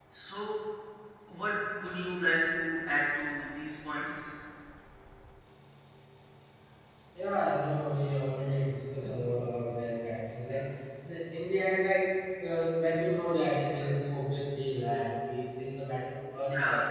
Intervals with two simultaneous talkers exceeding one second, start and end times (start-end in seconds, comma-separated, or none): none